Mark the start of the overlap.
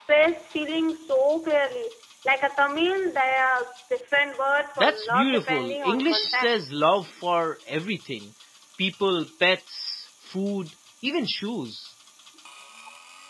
4.8 s

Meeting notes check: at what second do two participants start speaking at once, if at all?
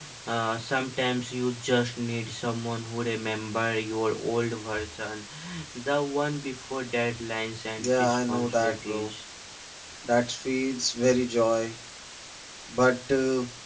7.8 s

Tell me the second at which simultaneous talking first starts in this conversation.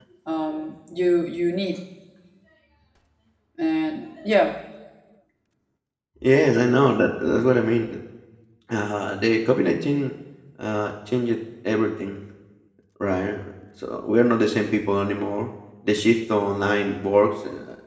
none

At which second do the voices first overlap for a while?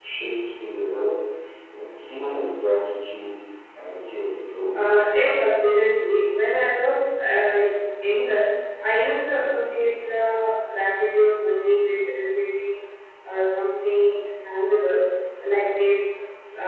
none

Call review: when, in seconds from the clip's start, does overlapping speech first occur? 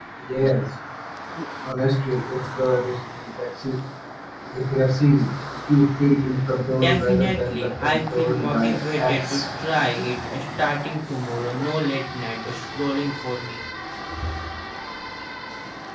6.8 s

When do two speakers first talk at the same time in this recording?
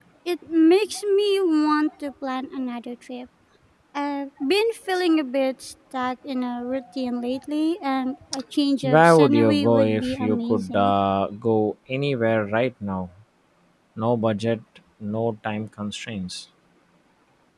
8.8 s

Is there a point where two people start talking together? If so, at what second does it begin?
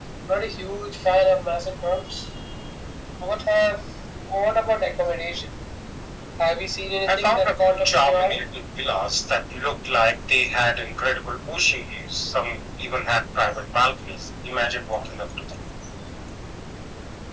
7.1 s

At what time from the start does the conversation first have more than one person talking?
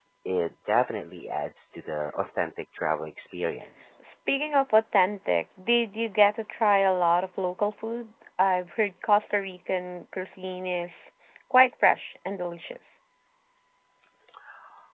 none

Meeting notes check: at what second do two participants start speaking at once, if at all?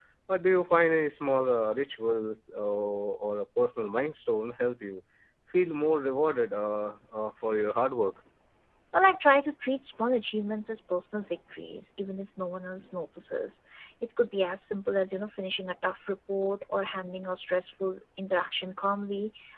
none

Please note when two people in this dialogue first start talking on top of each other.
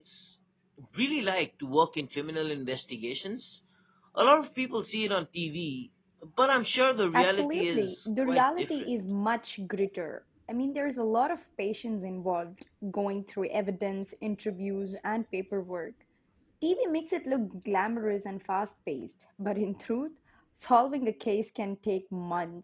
7.1 s

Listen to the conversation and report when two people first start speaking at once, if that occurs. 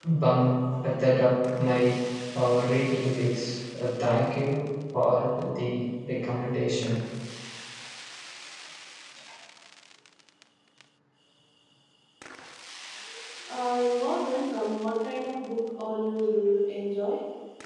none

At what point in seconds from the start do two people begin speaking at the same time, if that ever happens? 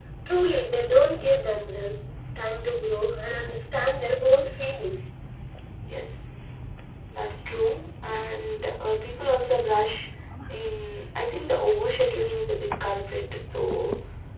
none

